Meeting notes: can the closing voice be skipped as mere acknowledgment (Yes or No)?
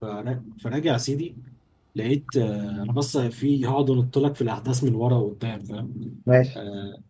Yes